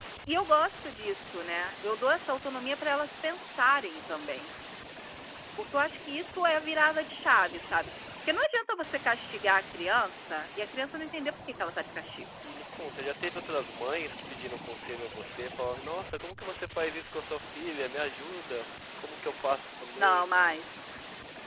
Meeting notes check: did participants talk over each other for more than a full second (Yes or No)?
No